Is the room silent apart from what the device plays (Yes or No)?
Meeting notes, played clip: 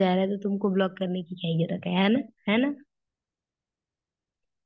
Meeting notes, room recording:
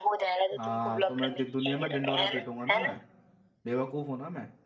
No